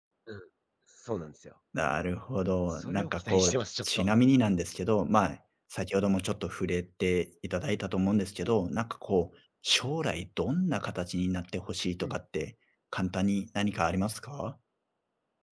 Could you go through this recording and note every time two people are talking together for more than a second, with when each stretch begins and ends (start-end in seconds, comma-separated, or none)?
2.7-4.2